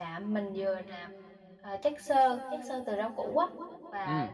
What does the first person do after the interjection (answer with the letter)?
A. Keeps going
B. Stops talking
A